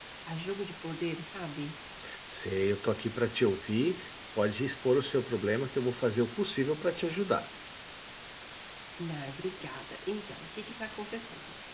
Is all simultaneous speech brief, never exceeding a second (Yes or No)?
Yes